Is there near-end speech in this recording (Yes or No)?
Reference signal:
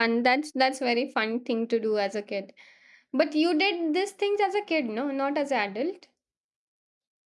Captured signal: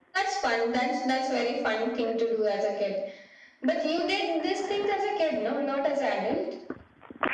No